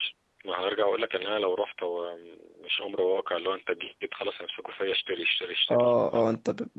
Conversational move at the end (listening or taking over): taking over